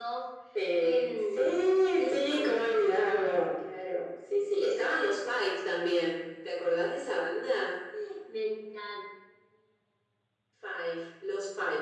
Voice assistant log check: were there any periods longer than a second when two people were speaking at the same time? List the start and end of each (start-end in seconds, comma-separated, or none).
0.8-3.5